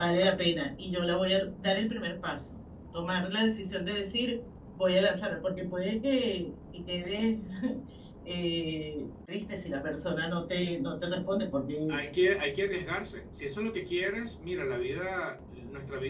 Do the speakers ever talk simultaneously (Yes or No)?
No